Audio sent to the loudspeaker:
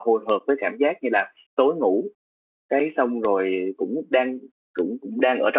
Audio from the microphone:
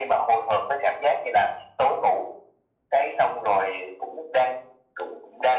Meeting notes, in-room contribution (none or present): none